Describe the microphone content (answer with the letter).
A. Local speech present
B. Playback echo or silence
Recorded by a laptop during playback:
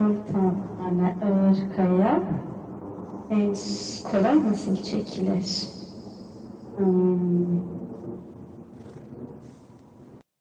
B